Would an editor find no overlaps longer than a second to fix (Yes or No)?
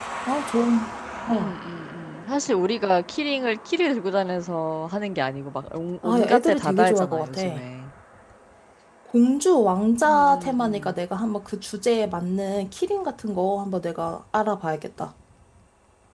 No